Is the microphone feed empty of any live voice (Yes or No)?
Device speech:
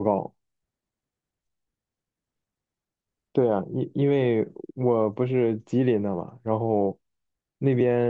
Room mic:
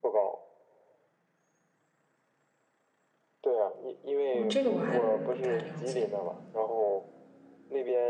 No